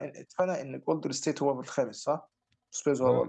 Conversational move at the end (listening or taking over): taking over